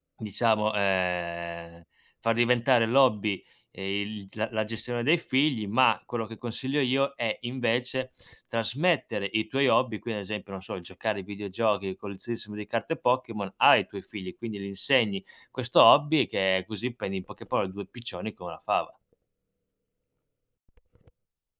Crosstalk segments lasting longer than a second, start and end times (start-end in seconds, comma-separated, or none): none